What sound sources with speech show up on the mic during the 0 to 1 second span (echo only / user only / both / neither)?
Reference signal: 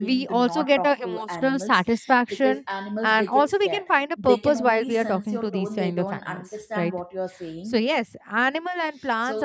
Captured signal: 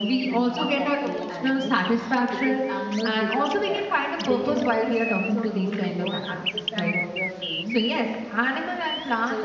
echo only